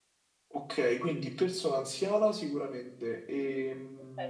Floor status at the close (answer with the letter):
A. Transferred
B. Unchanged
A